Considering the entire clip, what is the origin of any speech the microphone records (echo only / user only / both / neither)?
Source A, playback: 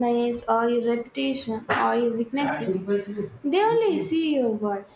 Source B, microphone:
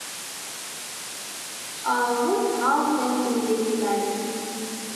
user only